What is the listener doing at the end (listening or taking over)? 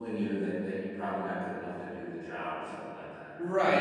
taking over